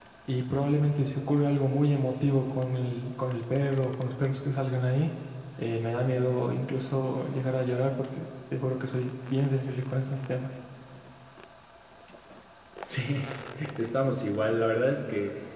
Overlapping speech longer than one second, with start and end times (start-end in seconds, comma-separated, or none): none